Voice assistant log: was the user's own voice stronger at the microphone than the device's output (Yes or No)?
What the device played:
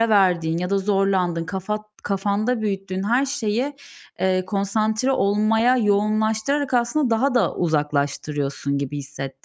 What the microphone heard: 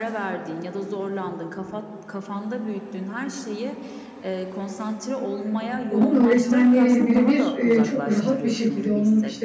Yes